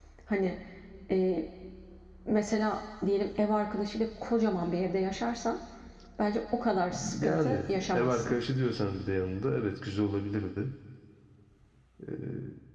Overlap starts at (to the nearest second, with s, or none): 7 s